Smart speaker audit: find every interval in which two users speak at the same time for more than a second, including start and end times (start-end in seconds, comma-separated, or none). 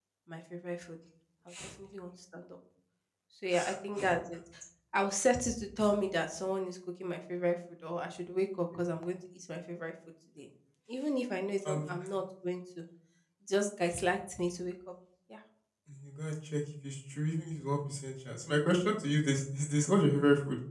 none